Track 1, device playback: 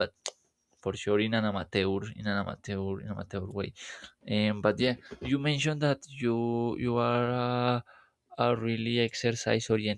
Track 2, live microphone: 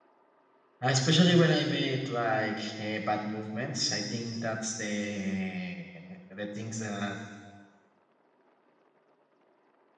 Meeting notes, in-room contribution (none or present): present